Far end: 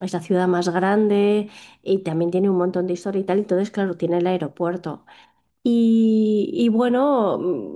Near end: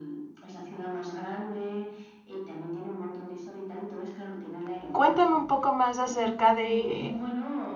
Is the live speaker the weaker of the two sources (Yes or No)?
No